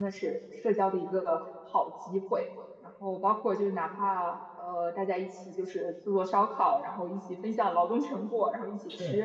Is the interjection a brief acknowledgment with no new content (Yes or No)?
Yes